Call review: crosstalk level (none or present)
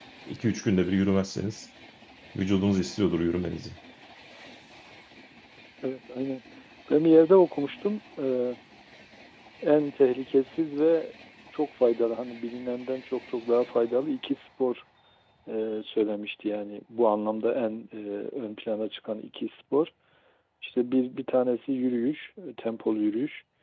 none